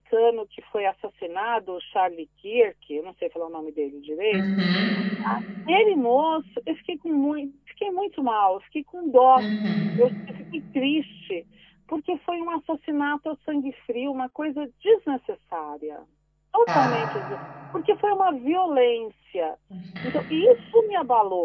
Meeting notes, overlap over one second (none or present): none